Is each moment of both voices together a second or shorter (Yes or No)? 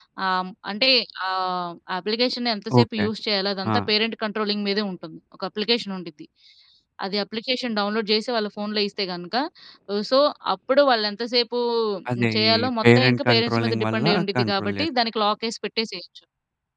No